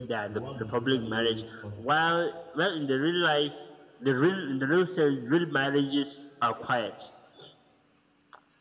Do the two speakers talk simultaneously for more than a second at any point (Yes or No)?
Yes